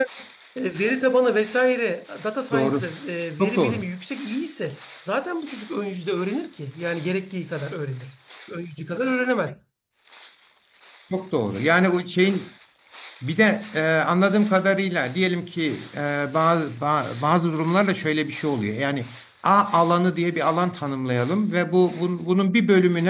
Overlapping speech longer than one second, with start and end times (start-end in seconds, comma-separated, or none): none